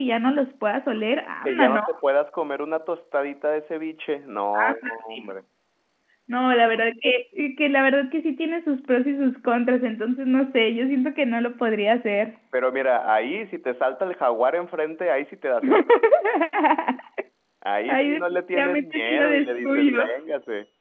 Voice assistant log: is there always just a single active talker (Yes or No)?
No